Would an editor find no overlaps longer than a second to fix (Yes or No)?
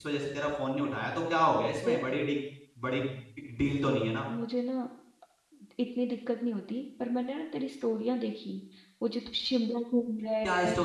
Yes